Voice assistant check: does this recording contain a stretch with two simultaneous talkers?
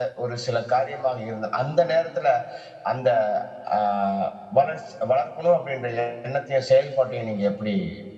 No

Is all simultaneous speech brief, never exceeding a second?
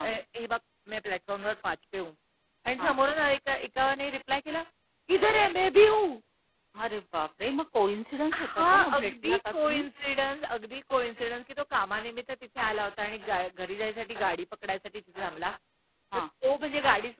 No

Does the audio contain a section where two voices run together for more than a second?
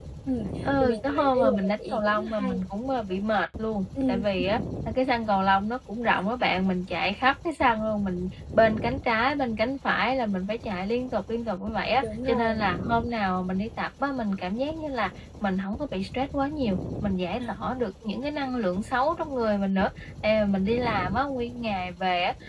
Yes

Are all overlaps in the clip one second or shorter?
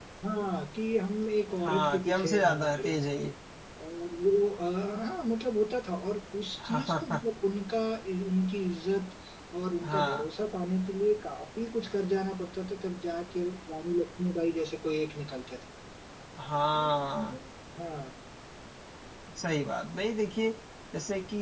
No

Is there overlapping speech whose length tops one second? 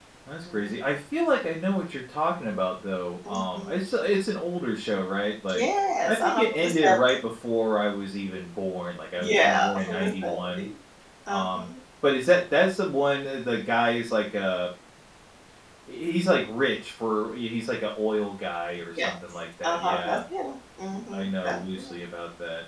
Yes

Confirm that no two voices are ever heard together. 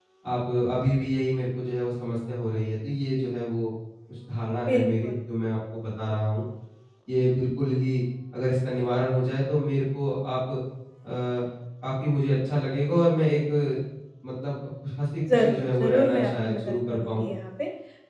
No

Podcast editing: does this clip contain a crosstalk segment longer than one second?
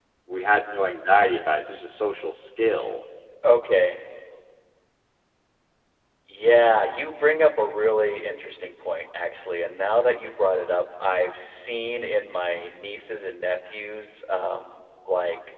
No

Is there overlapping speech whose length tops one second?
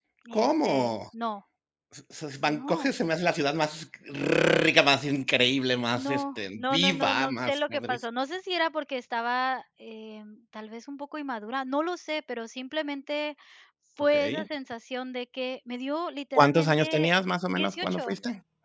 Yes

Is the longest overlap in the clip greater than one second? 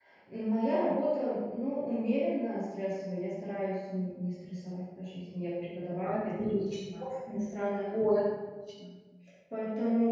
No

